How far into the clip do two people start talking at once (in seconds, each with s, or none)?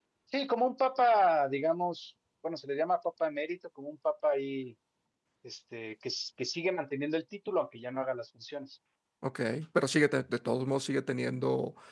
none